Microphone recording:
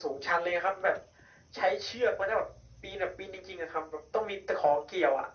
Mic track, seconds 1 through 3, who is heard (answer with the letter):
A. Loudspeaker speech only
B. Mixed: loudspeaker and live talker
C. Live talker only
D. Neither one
A